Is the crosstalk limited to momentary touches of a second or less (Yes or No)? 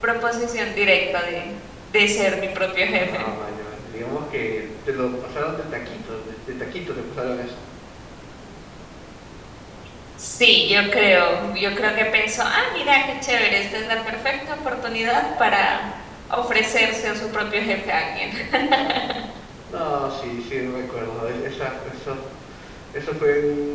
Yes